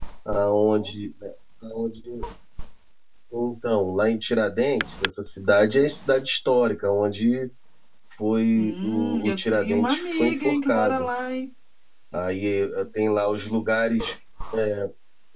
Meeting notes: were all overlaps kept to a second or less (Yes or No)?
No